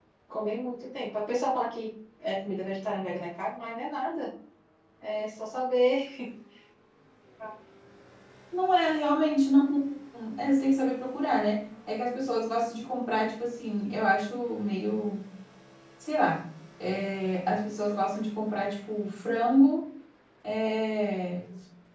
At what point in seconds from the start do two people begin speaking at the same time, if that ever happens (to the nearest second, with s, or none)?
none